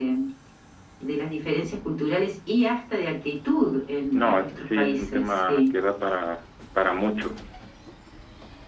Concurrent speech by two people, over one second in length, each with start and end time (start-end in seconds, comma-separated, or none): 4.1-5.7